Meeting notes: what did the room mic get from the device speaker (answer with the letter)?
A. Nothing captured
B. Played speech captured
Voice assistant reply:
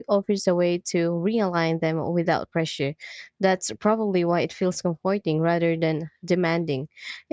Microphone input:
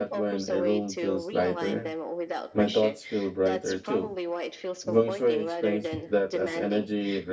B